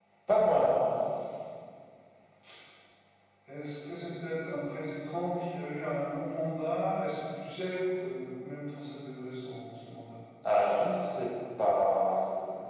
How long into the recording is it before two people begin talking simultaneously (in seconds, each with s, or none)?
none